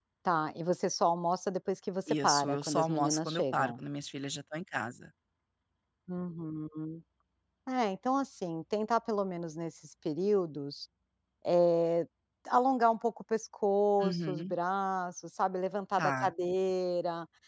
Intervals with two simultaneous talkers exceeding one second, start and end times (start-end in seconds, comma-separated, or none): 2.1-3.8